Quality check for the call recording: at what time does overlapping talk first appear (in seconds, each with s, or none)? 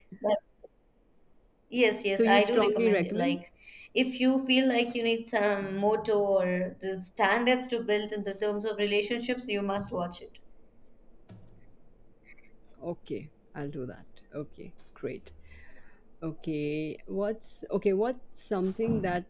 2.1 s